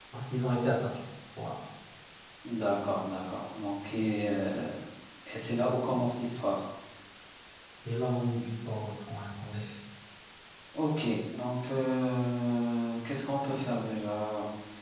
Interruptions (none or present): none